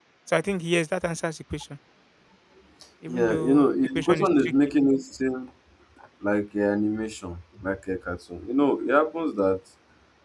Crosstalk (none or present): present